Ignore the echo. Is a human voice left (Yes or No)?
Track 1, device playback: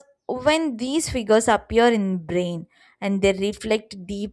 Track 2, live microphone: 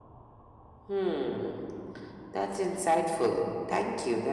Yes